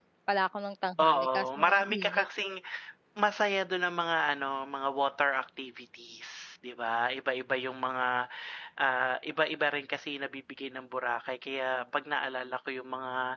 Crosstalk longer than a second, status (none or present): present